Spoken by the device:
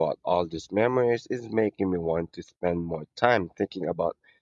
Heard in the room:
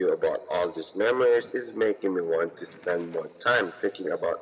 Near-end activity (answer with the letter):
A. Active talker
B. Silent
B